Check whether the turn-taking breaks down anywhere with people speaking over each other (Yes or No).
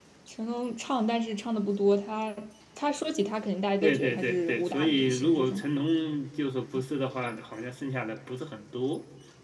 Yes